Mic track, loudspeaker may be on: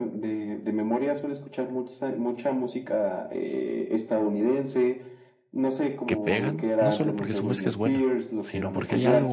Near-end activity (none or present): present